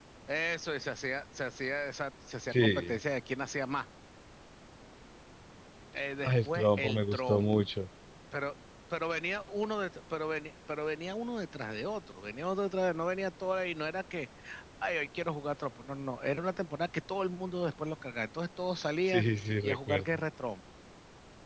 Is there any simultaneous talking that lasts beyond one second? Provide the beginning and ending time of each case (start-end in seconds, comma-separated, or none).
6.2-7.5